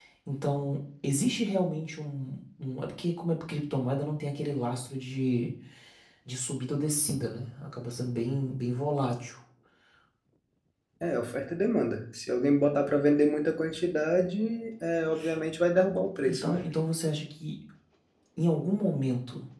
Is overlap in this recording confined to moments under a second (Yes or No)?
Yes